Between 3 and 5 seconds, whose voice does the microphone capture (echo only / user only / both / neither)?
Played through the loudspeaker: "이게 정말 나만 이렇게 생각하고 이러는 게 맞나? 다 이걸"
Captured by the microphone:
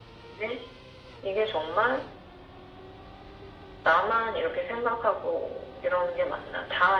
echo only